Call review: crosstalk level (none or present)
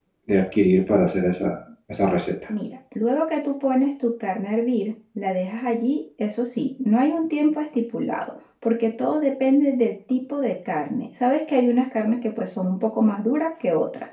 none